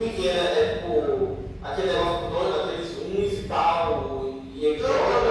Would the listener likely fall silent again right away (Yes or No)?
No